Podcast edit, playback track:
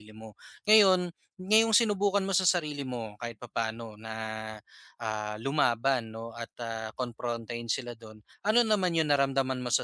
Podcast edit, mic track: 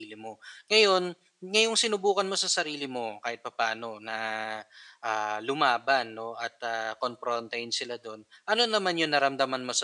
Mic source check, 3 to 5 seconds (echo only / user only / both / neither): echo only